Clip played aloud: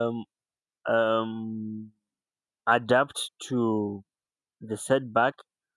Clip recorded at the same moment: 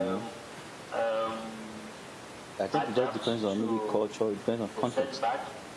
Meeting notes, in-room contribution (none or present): present